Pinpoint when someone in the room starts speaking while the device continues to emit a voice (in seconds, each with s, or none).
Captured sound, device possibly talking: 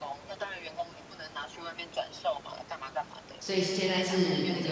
3.4 s